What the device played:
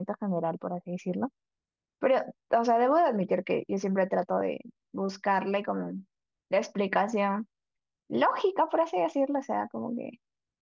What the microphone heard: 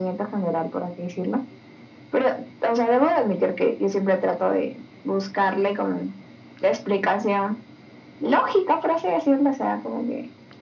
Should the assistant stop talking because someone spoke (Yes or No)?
No